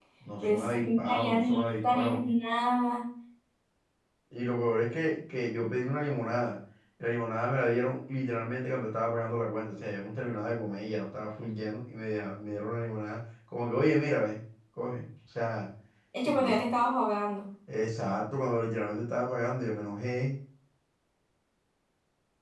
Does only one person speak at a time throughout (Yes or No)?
No